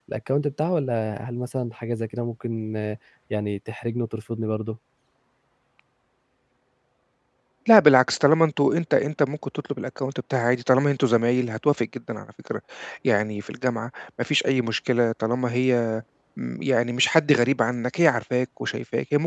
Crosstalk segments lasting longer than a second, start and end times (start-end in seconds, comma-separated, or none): none